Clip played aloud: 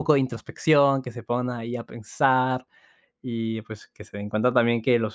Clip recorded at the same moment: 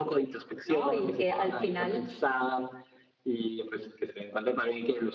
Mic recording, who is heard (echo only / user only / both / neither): both